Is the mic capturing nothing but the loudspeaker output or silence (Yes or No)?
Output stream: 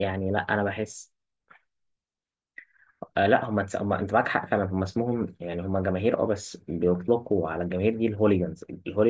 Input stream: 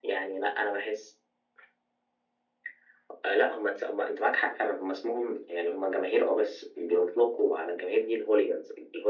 Yes